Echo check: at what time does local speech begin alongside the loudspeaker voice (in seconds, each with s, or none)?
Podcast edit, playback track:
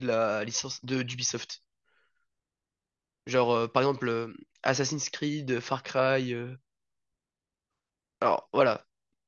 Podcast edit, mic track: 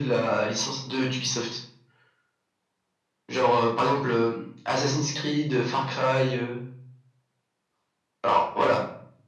none